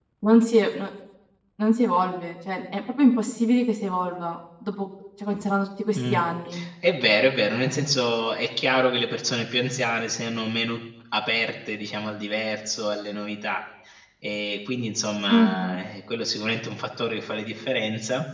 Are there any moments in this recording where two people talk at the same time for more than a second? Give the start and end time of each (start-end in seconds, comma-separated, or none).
none